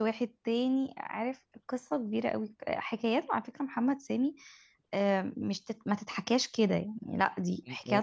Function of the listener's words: taking over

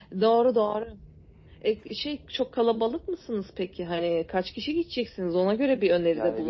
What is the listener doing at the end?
taking over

